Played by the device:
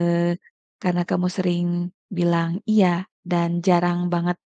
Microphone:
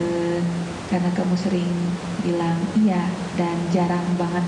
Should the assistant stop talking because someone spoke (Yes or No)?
No